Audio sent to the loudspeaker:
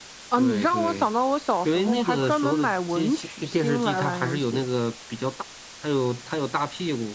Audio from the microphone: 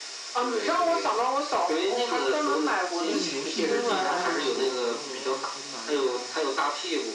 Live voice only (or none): 对，游戏都一样啊，什么魂斗罗啊、超级玛丽啊，